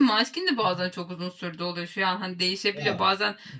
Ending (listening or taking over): listening